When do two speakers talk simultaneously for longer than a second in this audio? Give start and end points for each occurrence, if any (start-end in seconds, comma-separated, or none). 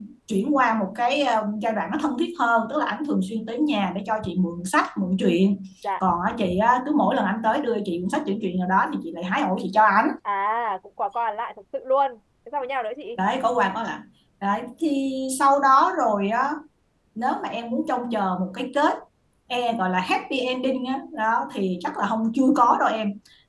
none